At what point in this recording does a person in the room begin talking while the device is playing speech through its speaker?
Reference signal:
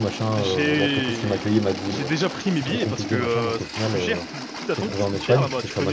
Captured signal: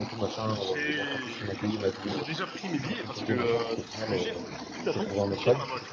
none

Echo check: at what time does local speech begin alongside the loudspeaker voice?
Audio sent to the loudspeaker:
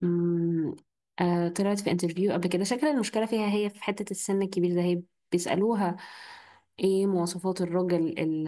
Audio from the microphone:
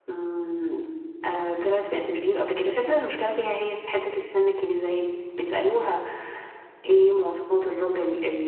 none

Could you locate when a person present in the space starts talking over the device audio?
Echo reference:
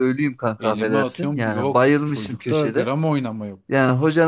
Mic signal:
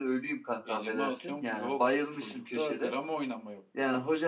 none

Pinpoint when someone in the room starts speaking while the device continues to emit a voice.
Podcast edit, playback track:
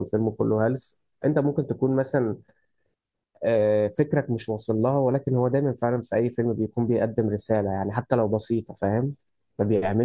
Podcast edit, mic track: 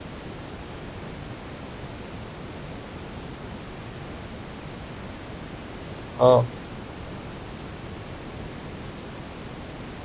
6.2 s

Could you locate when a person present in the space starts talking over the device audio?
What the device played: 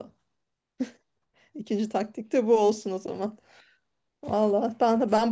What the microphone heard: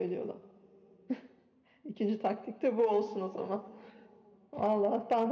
none

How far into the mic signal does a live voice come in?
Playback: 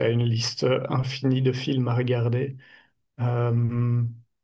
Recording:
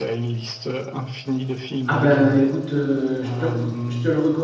1.9 s

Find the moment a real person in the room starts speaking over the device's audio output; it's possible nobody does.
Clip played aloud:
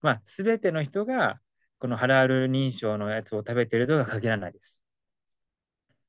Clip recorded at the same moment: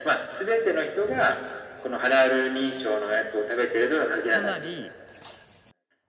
4.2 s

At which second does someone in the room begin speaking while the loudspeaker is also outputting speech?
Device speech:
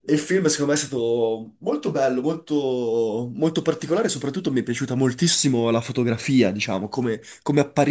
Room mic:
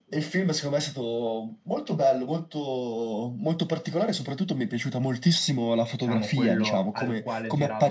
5.9 s

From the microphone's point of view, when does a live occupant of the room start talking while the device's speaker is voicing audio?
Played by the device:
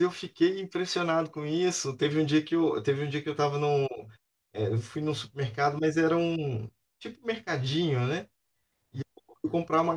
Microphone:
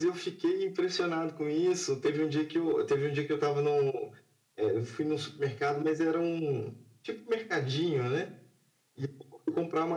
none

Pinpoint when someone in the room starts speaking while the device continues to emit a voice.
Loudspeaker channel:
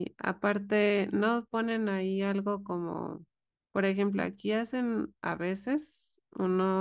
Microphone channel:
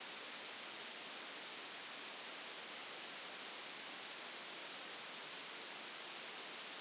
none

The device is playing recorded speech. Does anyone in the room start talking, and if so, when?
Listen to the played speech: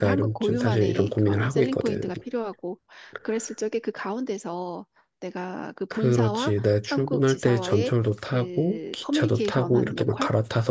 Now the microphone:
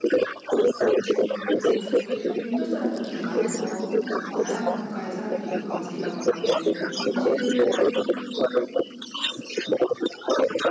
0.8 s

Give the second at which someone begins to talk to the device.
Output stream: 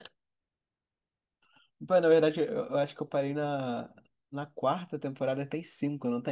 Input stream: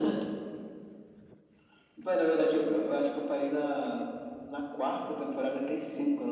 none

